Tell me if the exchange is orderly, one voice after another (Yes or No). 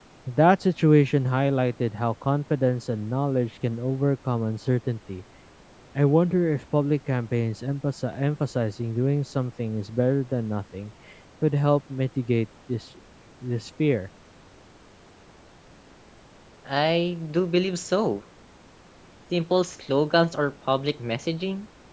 Yes